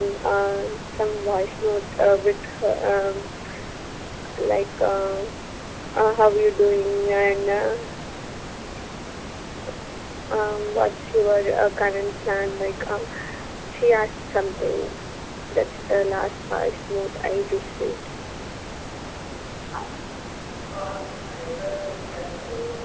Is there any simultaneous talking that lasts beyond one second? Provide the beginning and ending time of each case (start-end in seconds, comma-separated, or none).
none